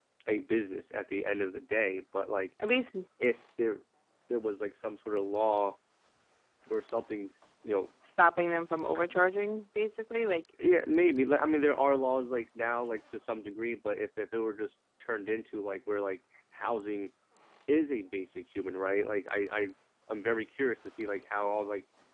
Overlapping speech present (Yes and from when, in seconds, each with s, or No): No